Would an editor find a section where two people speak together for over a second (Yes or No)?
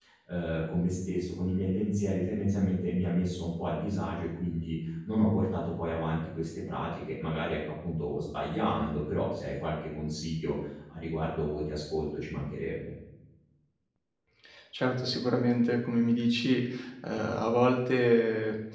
No